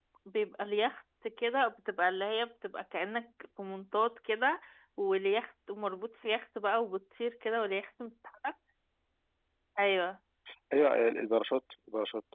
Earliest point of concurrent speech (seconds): none

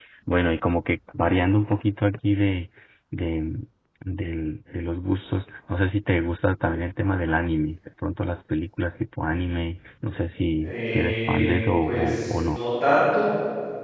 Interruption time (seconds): 10.6 s

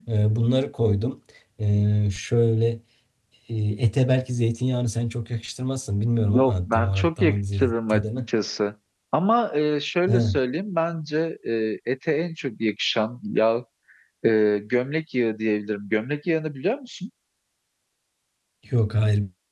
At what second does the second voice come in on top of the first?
6.3 s

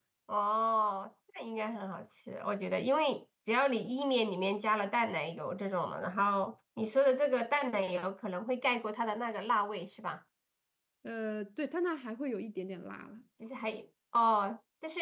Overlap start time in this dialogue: none

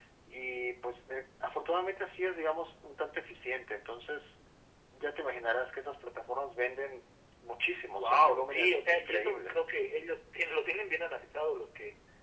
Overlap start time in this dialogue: 8.0 s

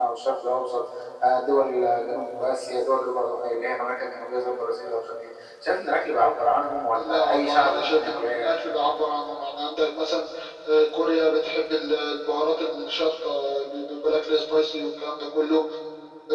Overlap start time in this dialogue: 7.0 s

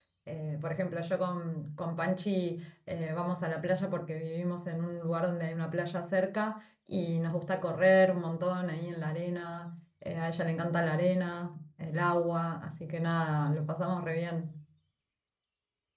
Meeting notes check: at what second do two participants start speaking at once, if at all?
none

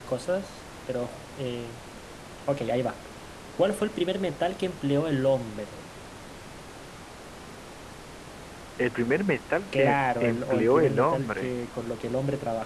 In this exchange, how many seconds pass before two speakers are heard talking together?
9.7 s

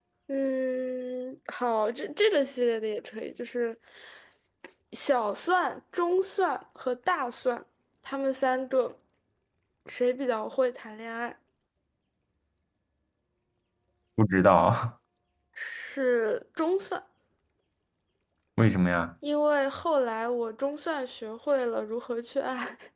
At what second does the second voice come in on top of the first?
none

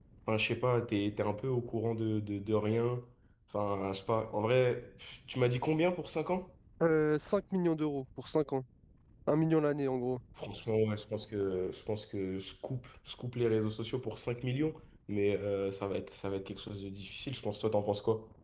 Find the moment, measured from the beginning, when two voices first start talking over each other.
none

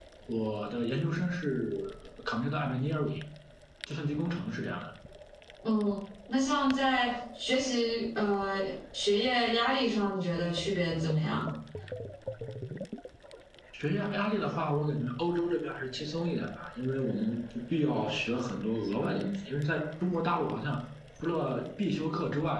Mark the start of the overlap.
none

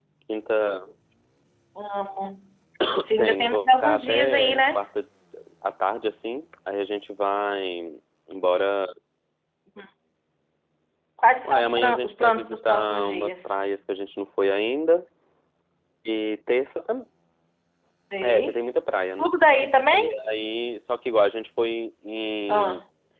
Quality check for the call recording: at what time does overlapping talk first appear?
3.2 s

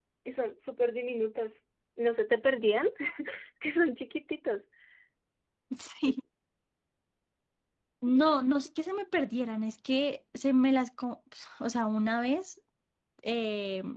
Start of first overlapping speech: none

